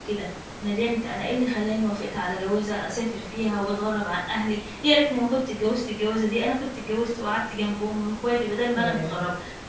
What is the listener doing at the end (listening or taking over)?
listening